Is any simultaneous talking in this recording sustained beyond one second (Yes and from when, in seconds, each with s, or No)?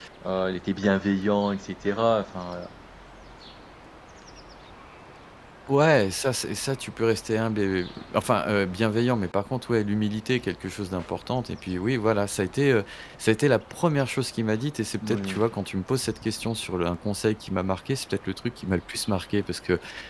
No